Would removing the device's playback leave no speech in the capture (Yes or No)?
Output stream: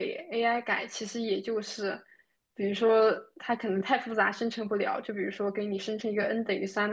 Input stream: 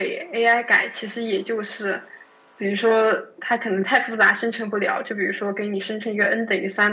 Yes